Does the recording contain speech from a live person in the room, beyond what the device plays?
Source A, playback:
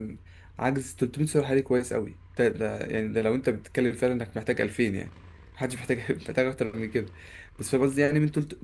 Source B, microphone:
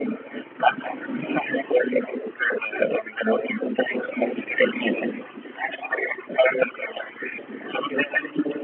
No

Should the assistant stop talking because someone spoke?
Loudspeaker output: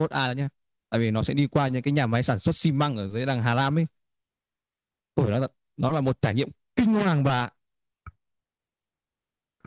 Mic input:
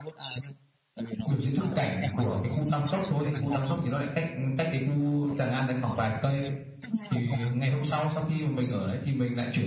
Yes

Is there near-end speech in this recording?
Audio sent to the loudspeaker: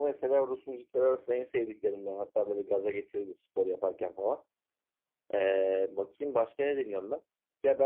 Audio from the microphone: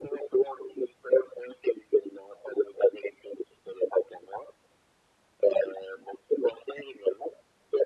No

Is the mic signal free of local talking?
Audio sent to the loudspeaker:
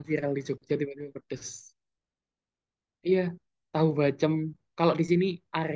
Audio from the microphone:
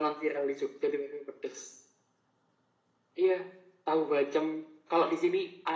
Yes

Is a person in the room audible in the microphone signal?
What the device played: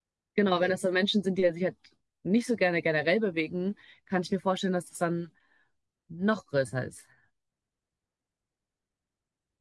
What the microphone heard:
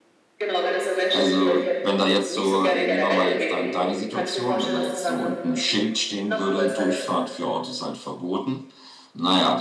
Yes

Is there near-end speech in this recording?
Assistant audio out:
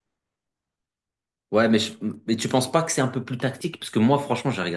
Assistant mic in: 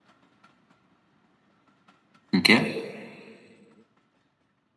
Yes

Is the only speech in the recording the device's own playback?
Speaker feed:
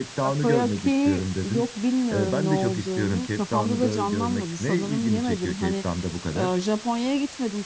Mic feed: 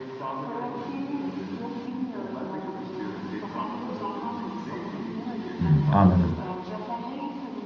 No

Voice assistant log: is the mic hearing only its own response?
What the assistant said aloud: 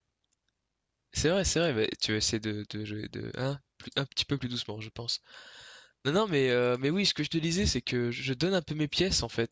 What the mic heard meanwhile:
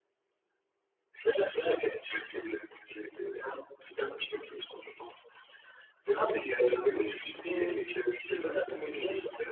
No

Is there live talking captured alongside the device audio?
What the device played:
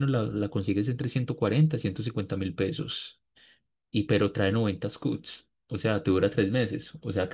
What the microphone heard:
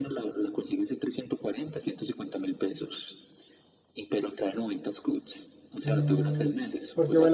Yes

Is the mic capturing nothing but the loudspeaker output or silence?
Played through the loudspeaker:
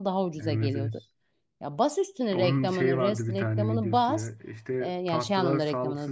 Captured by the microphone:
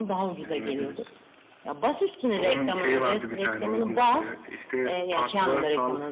Yes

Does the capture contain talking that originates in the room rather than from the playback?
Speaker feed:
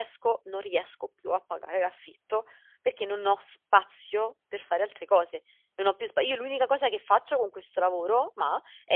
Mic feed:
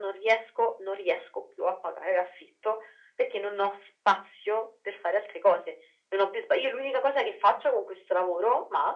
No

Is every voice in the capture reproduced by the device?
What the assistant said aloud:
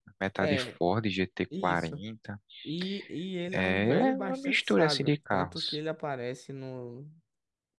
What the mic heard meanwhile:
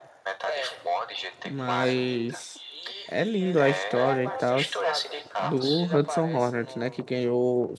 No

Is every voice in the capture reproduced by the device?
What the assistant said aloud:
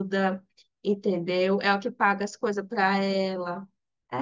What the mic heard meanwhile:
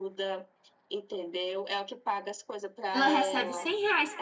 No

